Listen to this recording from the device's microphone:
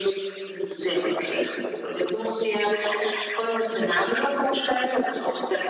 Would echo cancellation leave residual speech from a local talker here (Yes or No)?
No